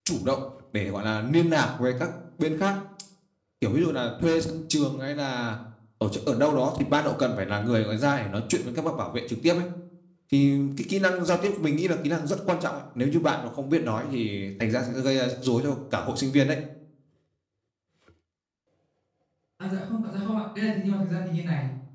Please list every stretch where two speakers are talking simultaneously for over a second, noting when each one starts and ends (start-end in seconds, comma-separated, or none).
none